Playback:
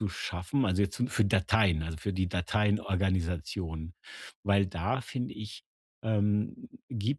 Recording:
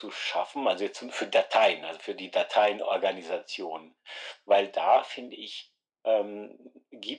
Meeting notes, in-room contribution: none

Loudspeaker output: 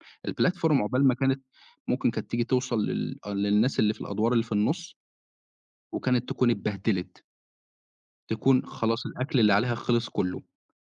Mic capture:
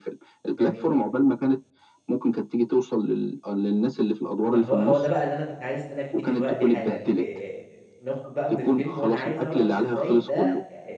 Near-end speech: present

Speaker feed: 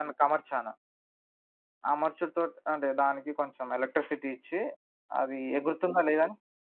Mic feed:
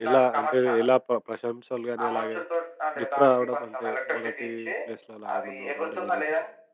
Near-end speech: present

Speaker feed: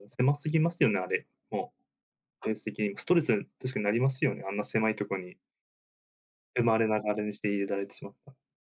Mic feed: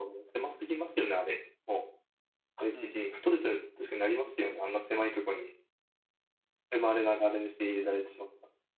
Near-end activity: present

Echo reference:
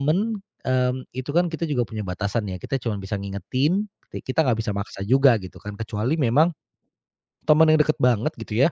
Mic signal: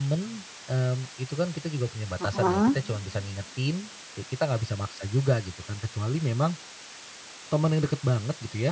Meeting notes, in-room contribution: present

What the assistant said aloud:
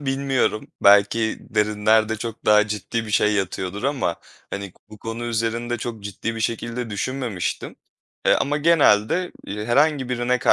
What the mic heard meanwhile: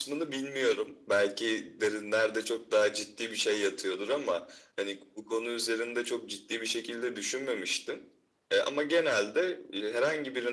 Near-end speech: none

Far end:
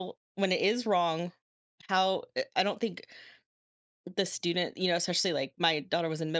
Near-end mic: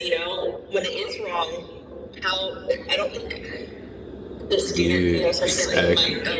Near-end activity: present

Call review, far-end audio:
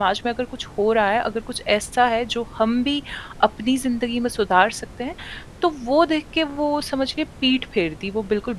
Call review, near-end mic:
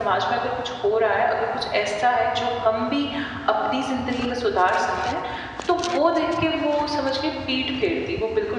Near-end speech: none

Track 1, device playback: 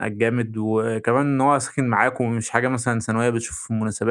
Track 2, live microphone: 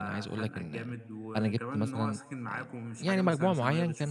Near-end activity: present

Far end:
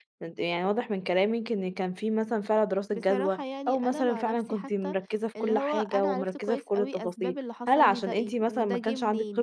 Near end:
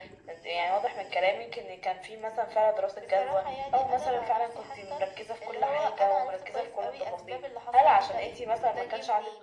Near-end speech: none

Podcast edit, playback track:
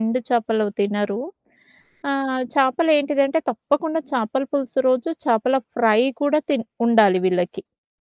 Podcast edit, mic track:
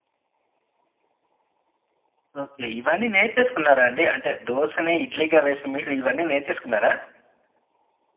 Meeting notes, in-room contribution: present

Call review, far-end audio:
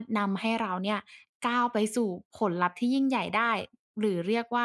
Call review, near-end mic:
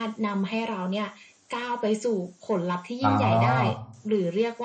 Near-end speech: present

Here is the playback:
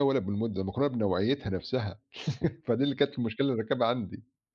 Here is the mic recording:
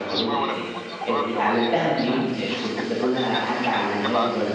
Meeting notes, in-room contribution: present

